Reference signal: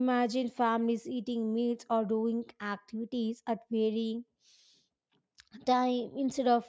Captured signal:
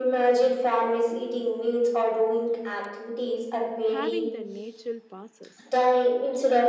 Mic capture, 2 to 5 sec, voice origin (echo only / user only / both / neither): both